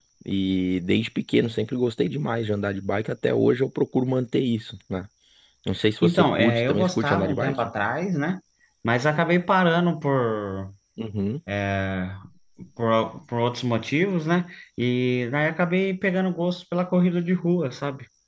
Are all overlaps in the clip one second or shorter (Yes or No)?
No